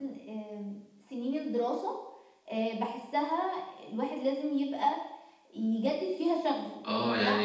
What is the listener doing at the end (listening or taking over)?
taking over